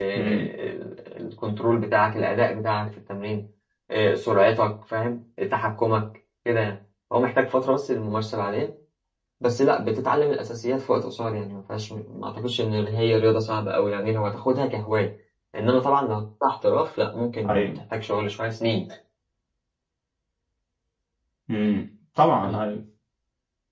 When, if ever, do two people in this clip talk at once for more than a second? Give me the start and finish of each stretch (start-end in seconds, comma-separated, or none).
none